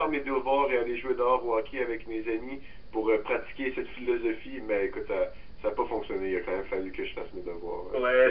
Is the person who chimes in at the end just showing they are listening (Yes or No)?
No